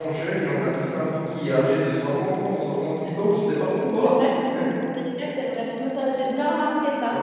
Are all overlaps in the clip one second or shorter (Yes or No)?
Yes